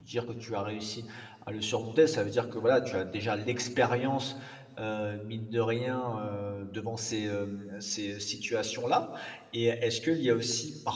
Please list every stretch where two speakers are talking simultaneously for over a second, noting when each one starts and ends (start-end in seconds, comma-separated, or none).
none